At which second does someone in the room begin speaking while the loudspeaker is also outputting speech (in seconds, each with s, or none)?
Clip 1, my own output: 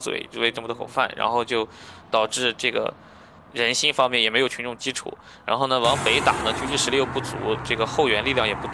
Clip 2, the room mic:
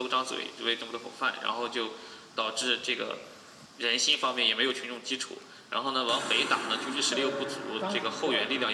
7.0 s